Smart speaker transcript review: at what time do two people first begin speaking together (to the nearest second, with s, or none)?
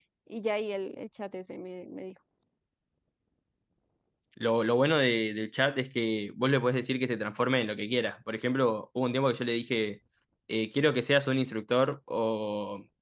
none